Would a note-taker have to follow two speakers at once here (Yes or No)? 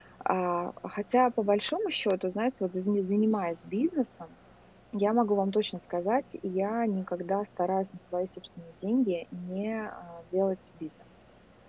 No